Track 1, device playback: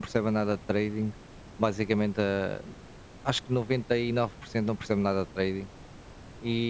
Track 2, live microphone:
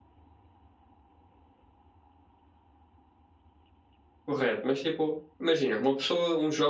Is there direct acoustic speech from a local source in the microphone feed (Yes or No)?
Yes